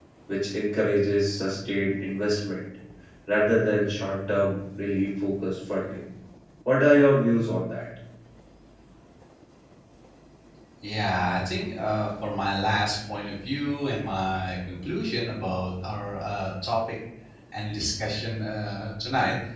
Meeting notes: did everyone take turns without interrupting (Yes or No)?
Yes